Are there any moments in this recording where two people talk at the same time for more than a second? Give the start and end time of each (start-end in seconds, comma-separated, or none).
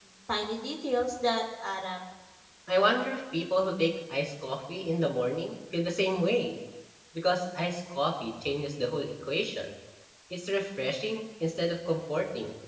none